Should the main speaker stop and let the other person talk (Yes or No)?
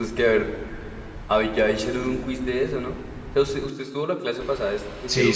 Yes